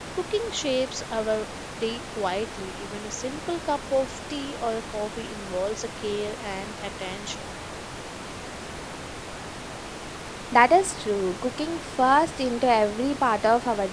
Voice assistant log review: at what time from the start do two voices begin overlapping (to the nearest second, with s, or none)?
none